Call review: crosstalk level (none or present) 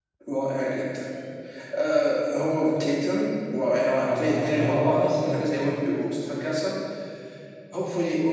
present